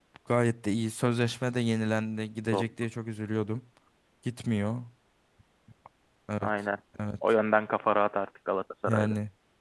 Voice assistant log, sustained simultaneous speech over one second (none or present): none